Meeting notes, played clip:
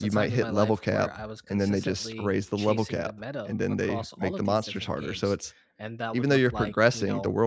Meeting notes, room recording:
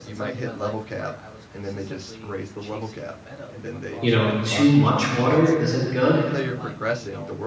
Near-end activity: present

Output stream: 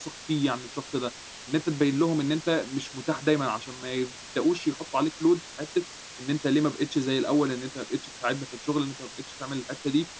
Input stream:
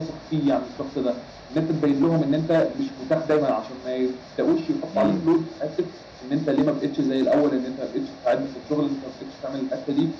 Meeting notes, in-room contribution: present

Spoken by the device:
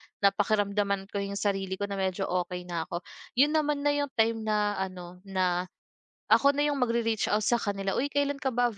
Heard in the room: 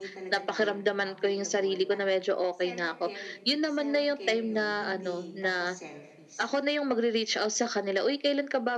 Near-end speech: present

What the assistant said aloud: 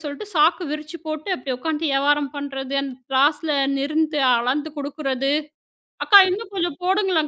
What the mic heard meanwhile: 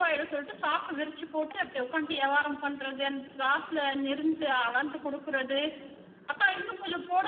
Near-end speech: none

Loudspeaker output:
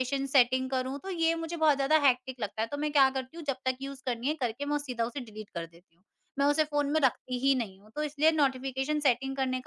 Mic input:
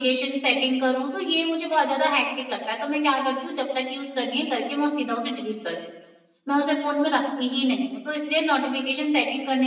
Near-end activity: none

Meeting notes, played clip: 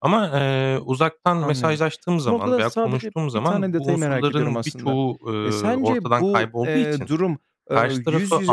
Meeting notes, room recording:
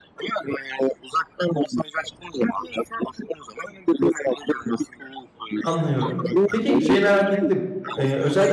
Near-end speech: present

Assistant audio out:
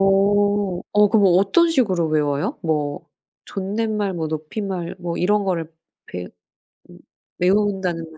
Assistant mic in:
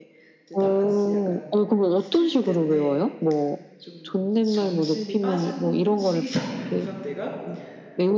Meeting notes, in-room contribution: present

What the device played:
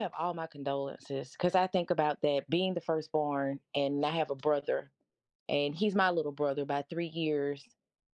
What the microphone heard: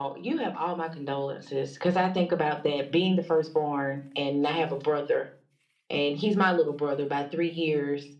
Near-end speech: none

